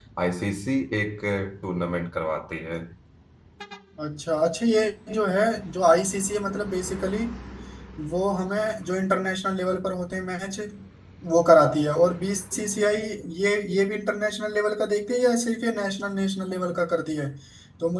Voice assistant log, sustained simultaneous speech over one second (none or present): none